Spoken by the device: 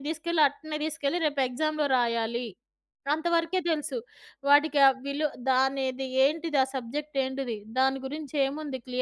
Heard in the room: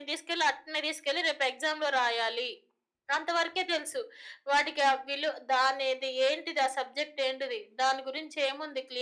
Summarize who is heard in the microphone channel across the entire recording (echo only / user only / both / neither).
echo only